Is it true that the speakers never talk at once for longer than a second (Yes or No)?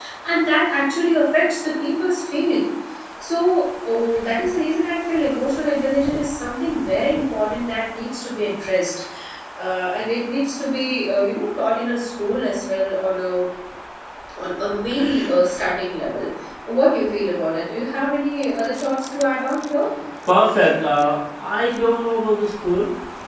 Yes